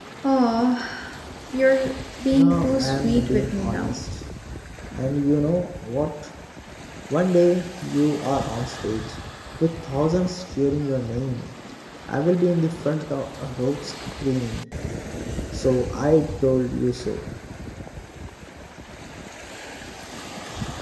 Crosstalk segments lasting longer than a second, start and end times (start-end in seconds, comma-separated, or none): 2.3-4.0